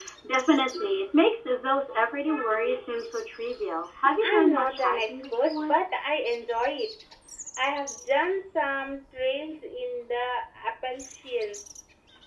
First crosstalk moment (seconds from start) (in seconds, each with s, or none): 4.0 s